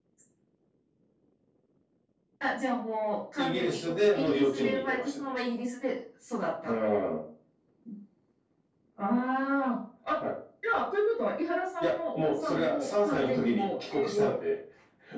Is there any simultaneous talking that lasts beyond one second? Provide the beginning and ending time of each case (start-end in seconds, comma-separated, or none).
3.4-5.2, 11.8-14.3